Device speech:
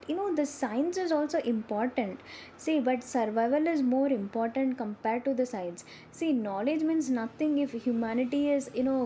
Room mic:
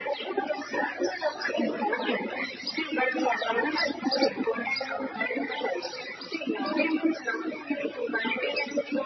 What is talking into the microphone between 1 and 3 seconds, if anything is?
echo only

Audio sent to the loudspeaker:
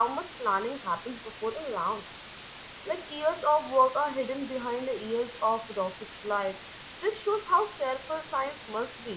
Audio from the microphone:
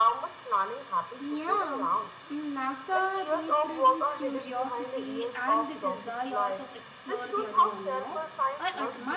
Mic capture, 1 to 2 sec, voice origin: both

